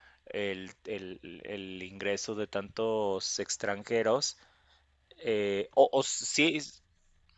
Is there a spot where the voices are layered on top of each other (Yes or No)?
No